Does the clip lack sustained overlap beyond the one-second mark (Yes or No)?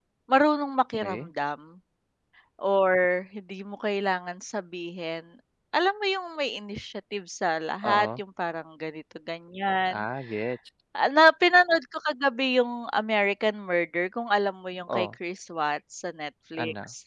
Yes